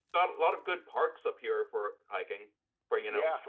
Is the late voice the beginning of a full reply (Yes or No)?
Yes